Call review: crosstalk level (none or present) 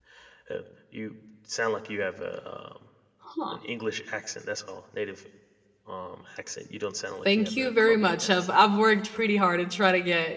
present